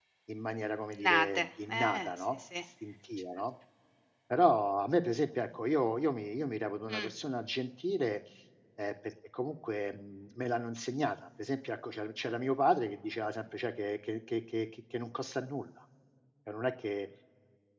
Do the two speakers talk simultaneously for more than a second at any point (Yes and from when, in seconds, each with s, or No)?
Yes, from 0.9 s